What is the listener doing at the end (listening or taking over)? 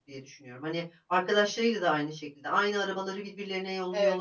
taking over